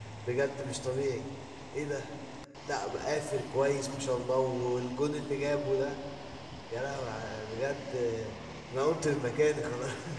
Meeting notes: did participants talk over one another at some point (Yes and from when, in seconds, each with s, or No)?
No